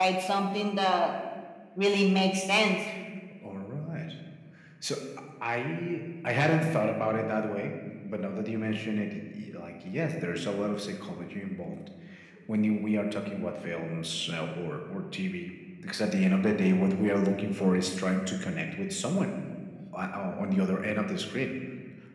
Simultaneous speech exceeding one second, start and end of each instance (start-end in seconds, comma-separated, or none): none